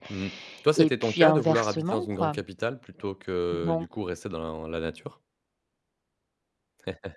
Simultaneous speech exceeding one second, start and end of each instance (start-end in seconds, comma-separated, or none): 0.8-2.3